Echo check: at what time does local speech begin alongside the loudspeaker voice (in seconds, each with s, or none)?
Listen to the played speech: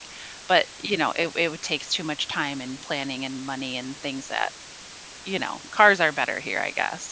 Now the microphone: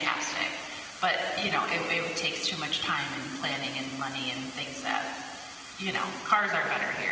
none